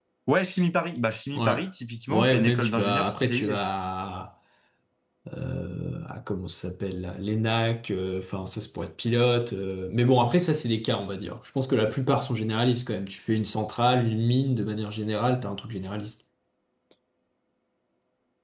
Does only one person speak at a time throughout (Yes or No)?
No